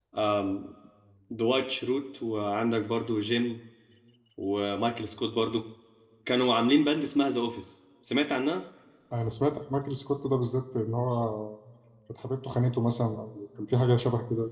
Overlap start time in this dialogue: none

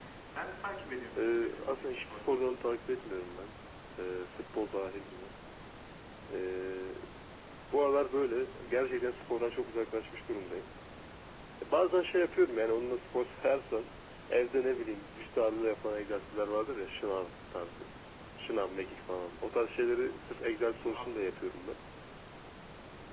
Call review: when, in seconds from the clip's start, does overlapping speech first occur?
1.2 s

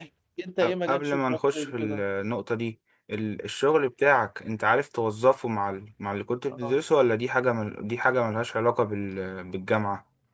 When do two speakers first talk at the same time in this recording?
0.6 s

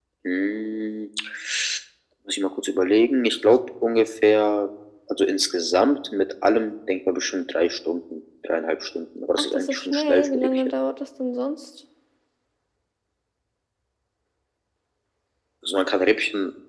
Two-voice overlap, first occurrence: 9.4 s

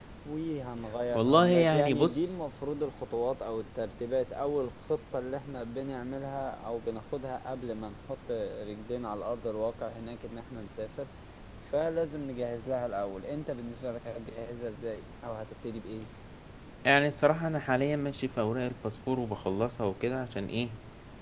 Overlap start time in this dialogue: 1.1 s

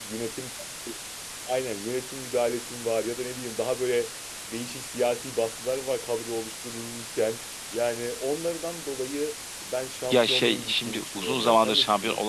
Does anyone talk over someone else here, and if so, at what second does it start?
10.1 s

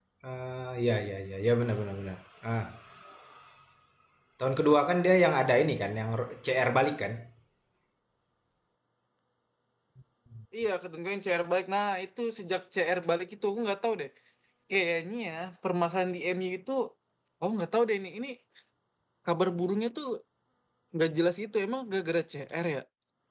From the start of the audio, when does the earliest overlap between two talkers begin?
none

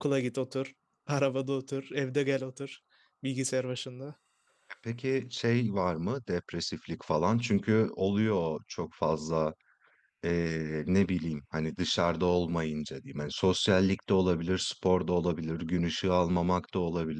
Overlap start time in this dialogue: none

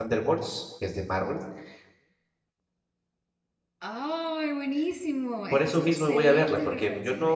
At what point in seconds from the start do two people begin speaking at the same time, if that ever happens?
5.5 s

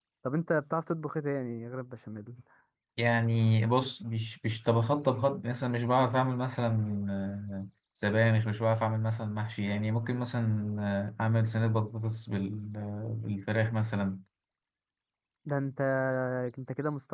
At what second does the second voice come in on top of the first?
none

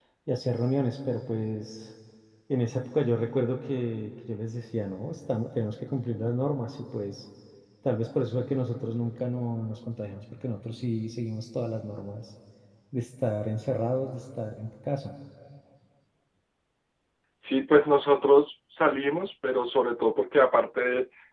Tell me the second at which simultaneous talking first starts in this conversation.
none

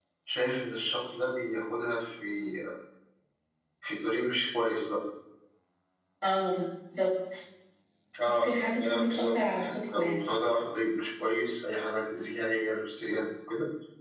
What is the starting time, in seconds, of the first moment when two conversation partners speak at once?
8.2 s

